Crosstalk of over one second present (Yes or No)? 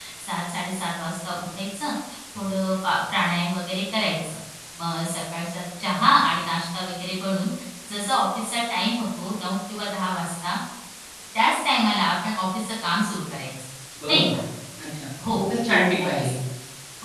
No